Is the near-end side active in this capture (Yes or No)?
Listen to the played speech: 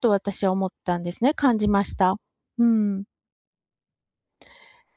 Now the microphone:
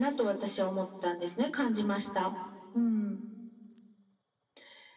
No